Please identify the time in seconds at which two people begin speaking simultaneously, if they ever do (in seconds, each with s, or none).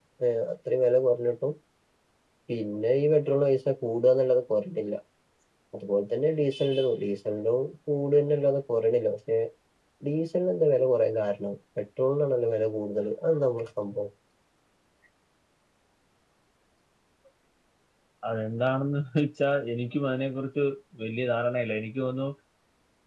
none